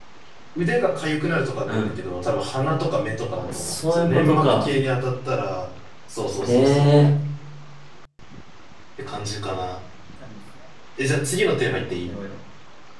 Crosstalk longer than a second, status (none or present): present